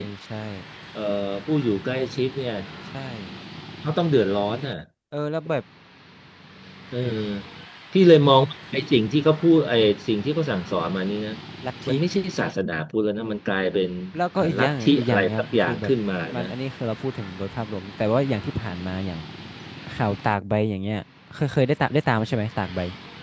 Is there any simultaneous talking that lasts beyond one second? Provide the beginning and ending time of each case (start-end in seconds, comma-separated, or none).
14.4-15.9